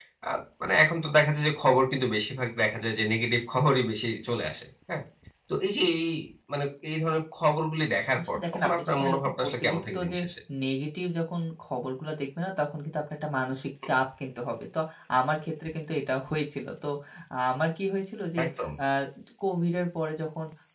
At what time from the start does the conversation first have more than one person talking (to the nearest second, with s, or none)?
8 s